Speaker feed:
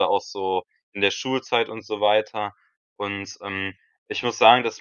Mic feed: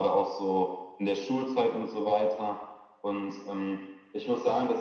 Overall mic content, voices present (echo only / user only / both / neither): echo only